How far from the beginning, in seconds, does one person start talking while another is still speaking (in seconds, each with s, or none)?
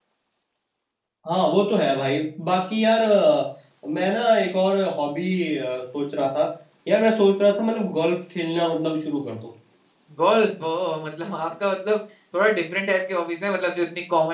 none